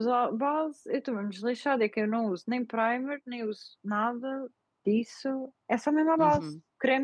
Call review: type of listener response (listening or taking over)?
taking over